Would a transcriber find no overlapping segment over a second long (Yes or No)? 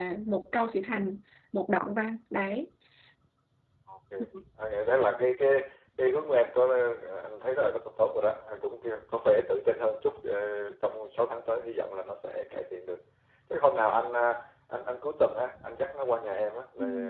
Yes